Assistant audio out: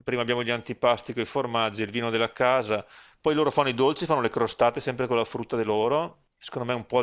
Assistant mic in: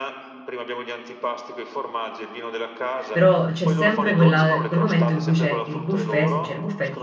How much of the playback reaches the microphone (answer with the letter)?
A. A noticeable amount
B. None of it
A